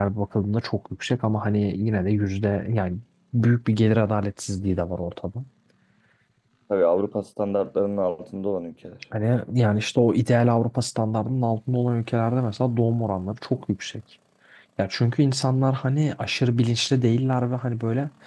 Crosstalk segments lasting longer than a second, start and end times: none

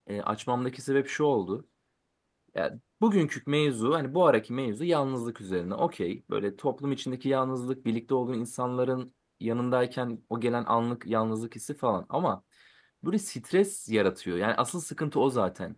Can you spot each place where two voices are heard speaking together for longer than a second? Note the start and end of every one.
none

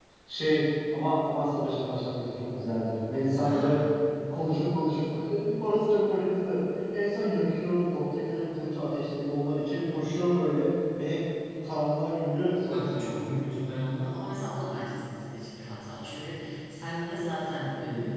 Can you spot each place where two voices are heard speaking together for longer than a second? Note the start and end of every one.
none

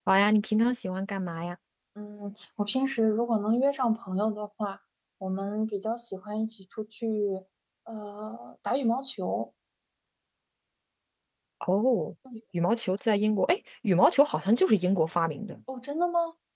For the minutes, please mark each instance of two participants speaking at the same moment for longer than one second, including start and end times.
none

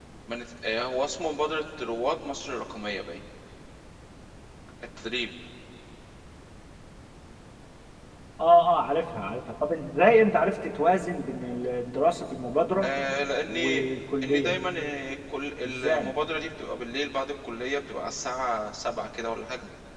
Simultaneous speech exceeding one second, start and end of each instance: none

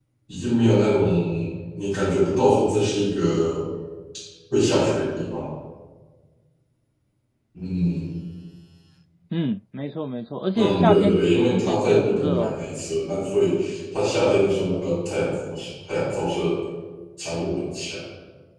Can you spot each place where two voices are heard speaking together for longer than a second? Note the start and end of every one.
10.5-12.6

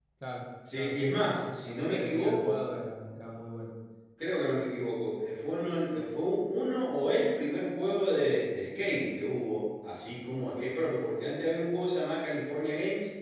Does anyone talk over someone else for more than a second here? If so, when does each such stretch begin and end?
0.8-2.6

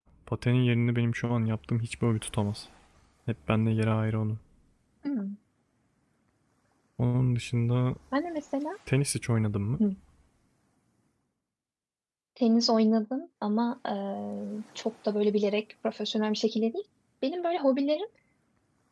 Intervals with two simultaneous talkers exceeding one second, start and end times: none

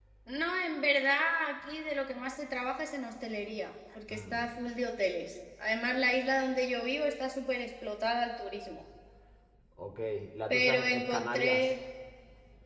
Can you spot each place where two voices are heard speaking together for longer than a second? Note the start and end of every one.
10.5-11.8

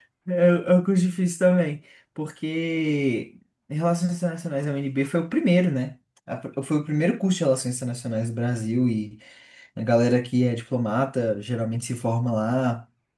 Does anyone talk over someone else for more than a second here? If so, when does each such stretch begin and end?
none

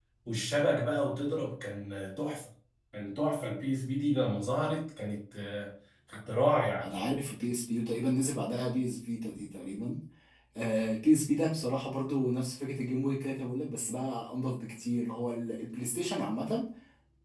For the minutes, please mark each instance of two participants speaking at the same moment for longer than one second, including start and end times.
none

